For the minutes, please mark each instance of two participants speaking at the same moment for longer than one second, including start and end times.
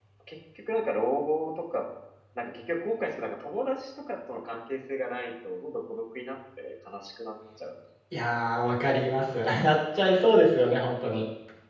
none

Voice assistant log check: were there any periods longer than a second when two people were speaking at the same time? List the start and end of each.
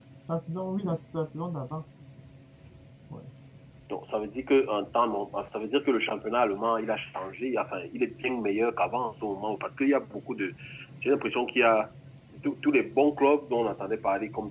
none

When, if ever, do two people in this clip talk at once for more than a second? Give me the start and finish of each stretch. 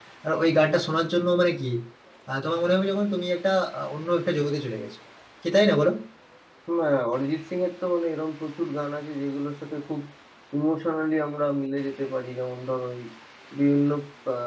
none

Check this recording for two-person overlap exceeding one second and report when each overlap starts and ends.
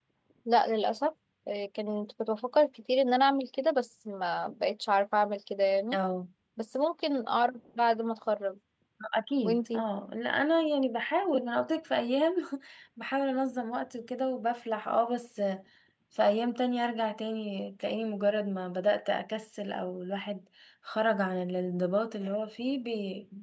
none

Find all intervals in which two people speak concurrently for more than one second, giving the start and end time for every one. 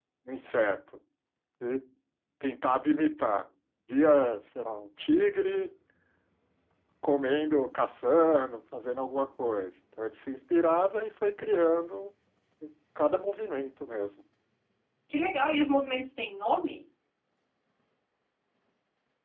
none

